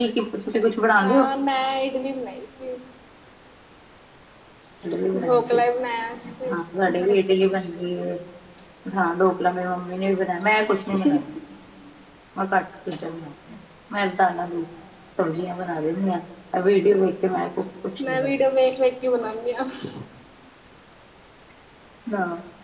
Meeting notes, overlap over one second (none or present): none